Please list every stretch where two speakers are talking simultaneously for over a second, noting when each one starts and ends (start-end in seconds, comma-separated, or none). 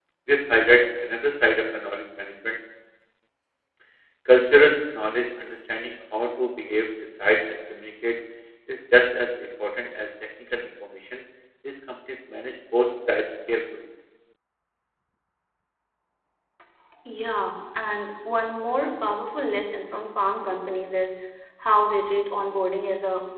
none